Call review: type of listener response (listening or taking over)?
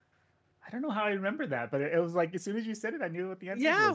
taking over